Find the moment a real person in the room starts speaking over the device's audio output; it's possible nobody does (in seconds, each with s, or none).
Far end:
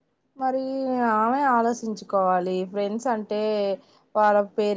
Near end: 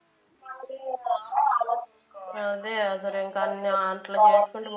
2.4 s